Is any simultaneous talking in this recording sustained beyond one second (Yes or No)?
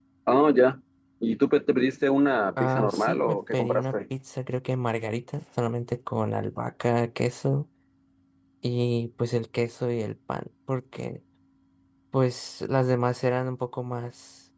Yes